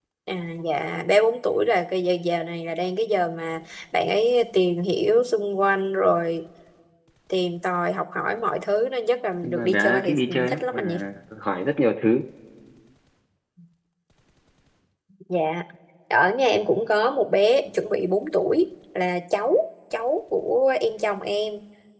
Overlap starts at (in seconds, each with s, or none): 9.4 s